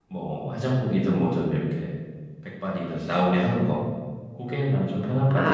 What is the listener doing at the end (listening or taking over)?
taking over